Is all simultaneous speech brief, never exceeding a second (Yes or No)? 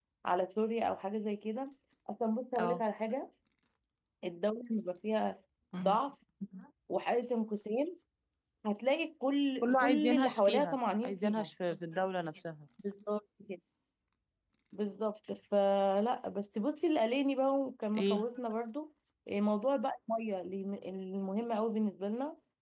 No